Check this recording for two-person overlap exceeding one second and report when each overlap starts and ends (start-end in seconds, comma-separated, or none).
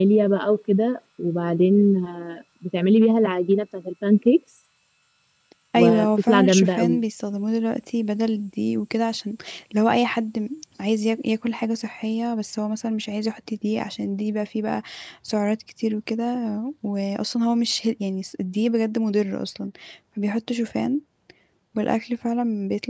5.8-7.0